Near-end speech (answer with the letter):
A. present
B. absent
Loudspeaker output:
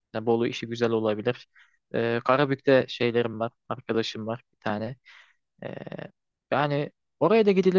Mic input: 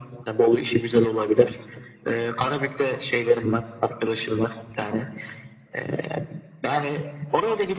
B